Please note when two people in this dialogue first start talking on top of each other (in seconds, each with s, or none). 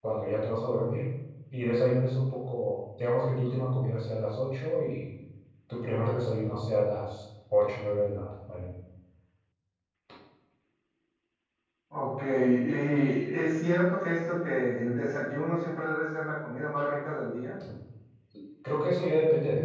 none